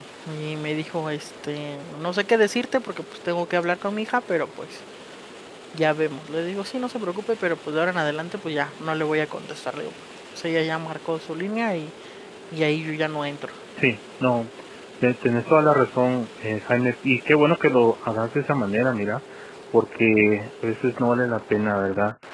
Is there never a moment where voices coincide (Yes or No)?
Yes